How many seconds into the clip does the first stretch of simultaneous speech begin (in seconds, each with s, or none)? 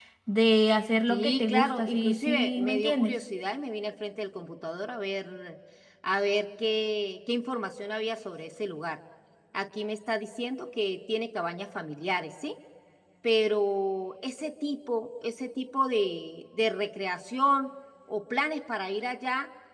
1.1 s